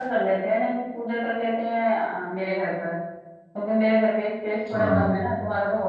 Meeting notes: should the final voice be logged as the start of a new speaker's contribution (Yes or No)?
No